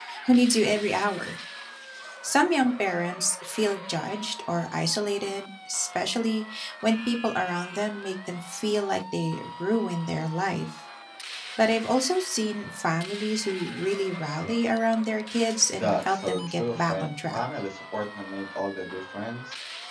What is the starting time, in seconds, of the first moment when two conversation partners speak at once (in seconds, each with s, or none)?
15.8 s